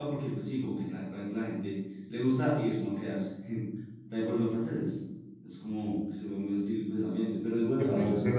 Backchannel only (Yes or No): No